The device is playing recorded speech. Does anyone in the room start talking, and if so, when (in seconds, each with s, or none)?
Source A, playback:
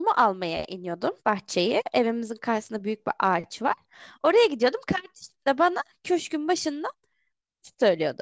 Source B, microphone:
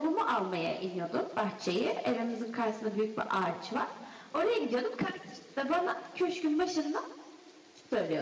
none